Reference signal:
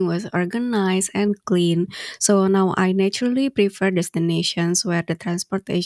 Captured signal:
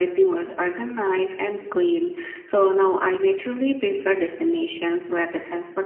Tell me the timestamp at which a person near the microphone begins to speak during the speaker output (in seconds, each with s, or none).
none